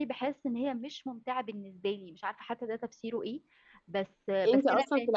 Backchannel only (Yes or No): No